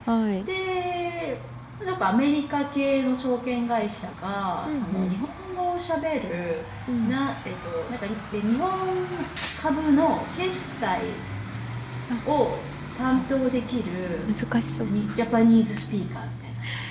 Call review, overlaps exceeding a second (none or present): none